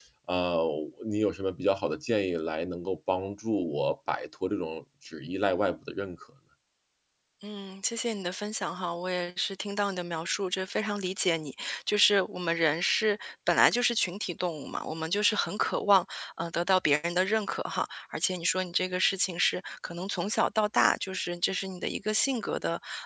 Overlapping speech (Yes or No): No